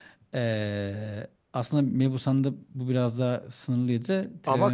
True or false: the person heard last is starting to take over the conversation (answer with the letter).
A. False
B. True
B